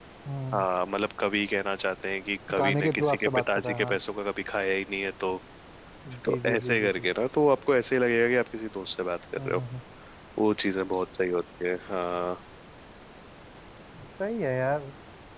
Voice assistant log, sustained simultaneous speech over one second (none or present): present